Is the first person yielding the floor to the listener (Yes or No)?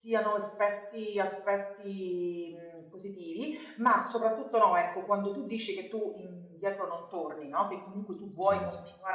No